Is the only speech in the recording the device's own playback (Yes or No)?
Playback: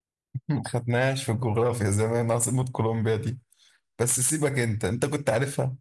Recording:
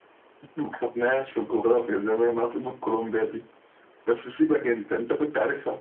Yes